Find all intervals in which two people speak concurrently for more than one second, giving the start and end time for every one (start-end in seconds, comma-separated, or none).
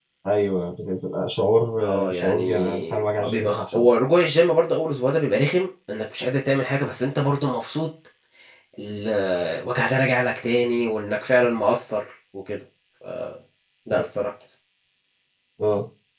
1.8-3.9